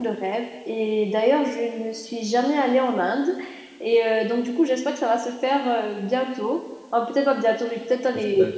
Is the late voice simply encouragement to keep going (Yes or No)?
Yes